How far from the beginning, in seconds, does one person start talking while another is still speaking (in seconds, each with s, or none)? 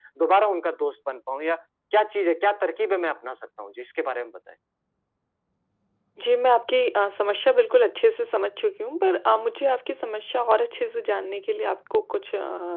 none